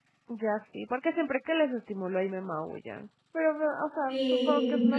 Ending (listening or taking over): taking over